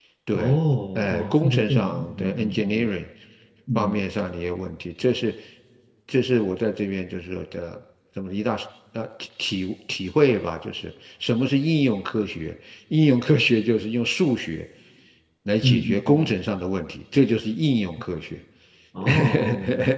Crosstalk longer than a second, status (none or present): present